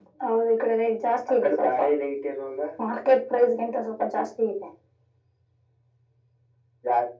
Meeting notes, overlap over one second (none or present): none